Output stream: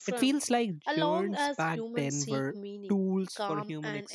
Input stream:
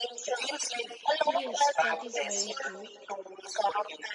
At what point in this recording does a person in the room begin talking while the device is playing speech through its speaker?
1 s

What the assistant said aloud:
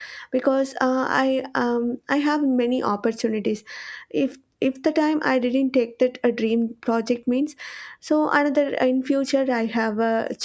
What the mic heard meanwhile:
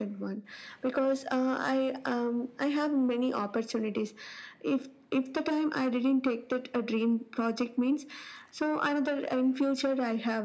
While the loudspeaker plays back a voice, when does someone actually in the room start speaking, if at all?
none

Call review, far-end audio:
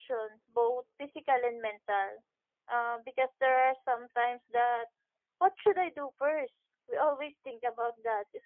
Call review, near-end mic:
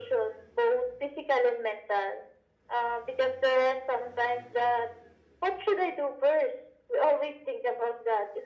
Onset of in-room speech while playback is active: none

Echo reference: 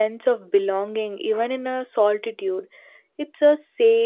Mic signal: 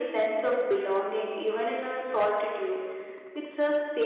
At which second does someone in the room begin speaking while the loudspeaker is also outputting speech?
none

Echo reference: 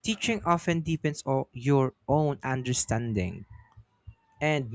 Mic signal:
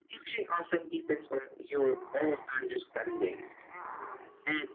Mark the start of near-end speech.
none

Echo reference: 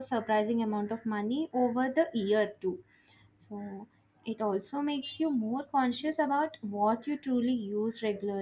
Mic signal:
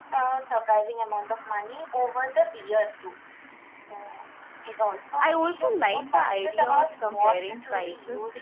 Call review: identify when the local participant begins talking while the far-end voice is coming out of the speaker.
5 s

